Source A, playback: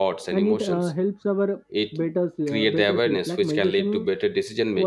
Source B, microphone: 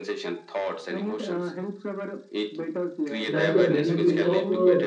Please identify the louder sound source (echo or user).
user